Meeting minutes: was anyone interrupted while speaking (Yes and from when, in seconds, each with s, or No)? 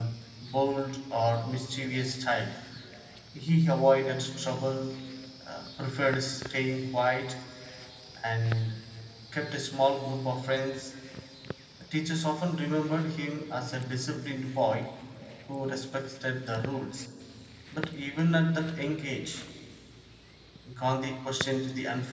No